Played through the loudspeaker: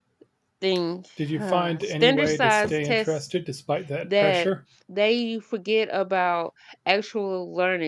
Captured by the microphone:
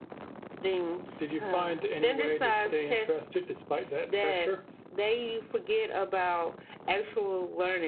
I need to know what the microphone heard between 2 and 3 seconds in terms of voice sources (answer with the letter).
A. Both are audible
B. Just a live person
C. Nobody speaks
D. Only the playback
D